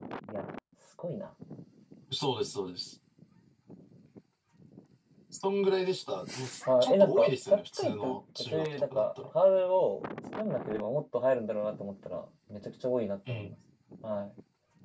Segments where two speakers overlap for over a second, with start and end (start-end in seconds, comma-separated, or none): 6.8-9.0